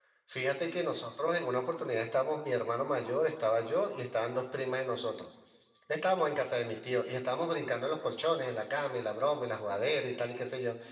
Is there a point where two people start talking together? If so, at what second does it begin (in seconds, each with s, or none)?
none